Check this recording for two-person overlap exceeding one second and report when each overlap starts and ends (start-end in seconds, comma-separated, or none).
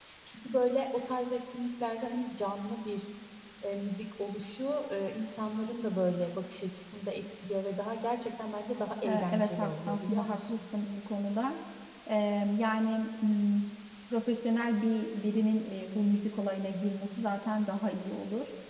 9.0-10.6